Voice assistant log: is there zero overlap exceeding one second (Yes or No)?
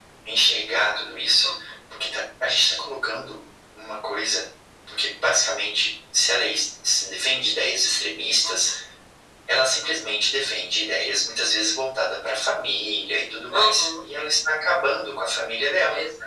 Yes